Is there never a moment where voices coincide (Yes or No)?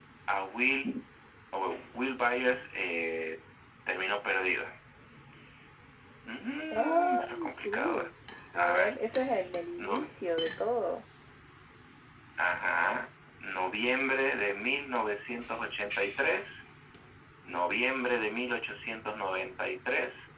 No